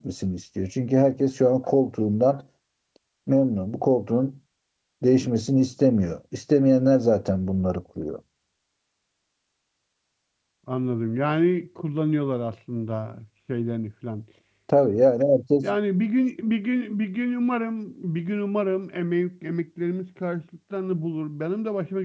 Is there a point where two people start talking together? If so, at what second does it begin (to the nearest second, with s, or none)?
none